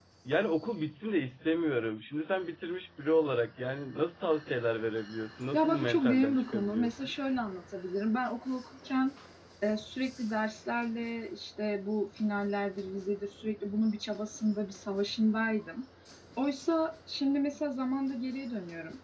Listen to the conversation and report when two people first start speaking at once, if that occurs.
5.5 s

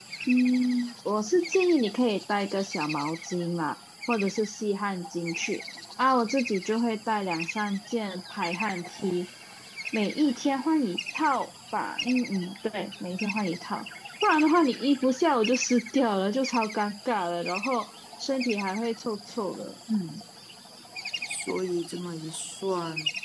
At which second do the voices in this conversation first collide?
none

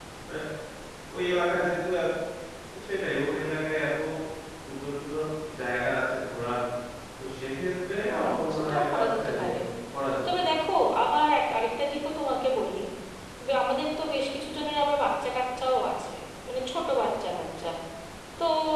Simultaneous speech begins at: 8.1 s

